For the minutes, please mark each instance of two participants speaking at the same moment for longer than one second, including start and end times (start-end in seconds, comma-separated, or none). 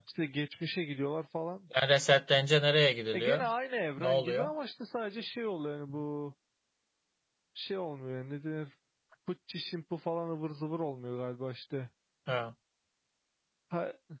none